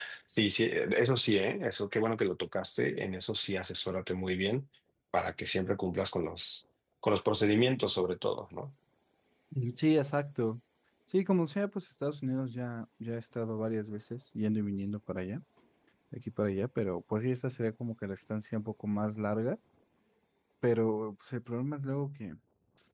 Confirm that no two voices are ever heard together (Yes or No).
Yes